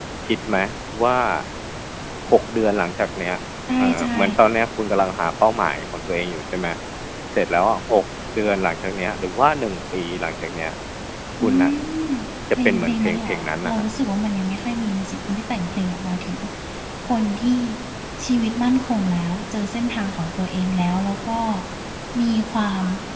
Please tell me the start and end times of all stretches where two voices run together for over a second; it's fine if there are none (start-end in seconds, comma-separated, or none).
12.7-13.8